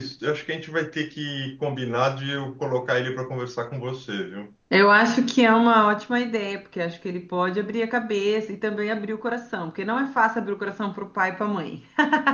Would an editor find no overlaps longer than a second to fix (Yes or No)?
Yes